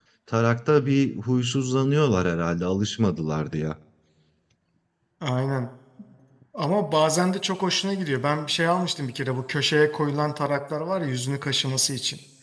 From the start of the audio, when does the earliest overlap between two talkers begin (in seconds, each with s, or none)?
none